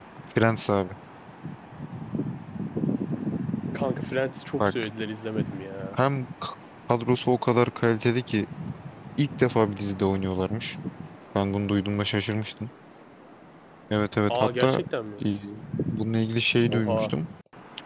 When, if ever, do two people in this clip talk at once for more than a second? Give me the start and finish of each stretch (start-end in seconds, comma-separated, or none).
none